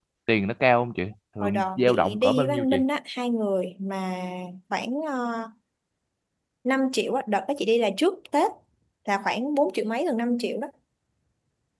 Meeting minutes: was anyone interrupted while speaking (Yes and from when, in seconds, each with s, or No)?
Yes, from 1.4 s